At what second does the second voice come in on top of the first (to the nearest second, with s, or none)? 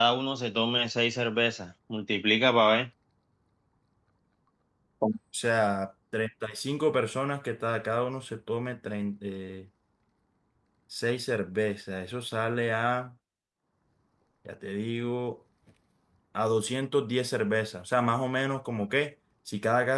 none